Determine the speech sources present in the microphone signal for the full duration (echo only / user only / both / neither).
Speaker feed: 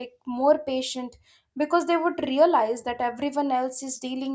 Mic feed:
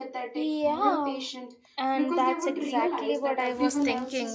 both